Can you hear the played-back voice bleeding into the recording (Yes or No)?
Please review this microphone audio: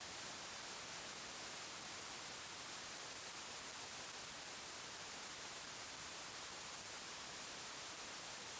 No